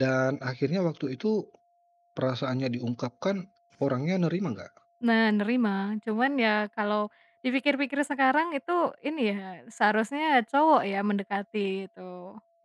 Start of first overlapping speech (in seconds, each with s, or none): none